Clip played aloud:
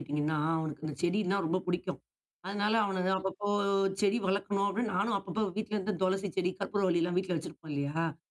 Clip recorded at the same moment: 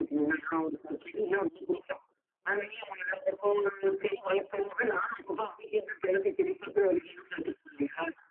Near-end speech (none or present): none